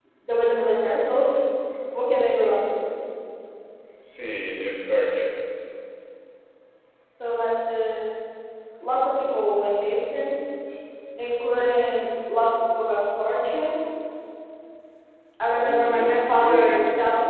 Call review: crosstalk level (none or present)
present